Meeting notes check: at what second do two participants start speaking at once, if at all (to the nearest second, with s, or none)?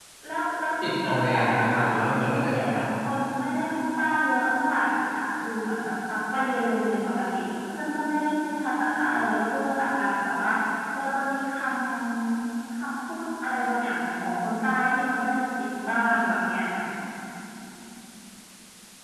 1 s